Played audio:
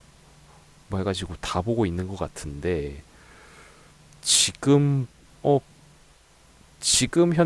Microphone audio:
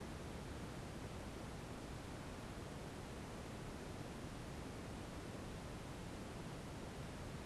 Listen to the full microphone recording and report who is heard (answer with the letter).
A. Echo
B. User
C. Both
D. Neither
D